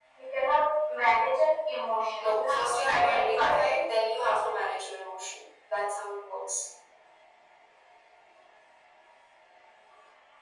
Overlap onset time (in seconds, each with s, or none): 2.2 s